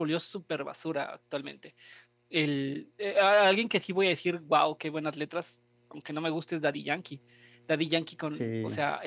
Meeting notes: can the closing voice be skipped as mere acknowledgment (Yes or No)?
Yes